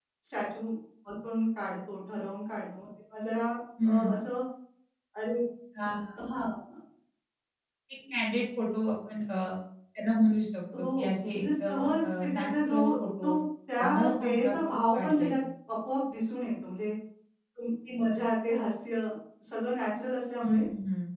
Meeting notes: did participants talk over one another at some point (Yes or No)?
Yes